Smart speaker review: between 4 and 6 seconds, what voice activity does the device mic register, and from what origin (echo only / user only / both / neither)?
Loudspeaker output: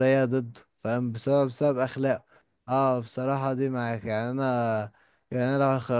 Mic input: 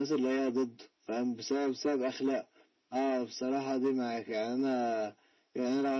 echo only